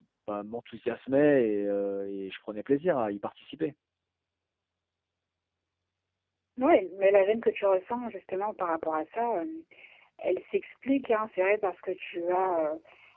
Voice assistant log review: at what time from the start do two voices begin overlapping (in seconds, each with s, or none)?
none